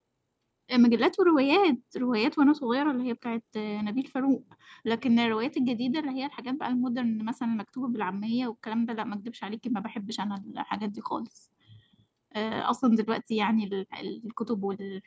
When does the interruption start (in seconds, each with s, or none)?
none